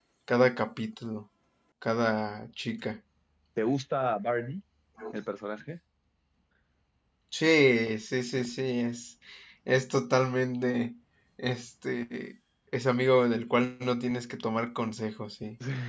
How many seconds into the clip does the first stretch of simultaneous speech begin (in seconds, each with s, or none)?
none